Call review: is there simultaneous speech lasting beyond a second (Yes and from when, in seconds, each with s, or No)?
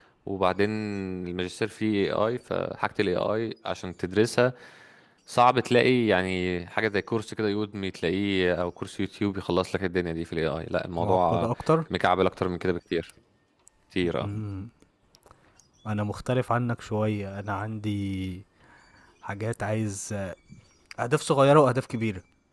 No